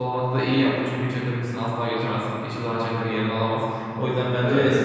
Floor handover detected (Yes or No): No